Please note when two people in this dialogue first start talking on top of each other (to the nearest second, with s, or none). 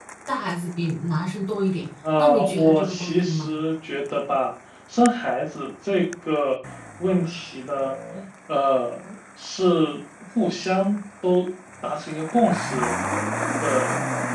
2 s